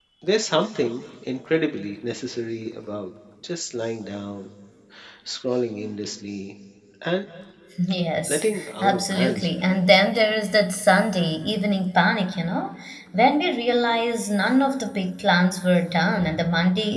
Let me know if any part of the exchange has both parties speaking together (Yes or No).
Yes